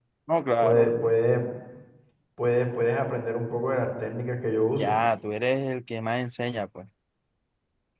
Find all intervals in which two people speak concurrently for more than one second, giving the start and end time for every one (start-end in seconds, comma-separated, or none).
none